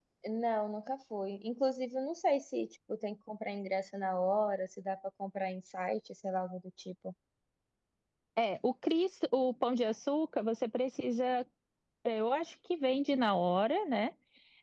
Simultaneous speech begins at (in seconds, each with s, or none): none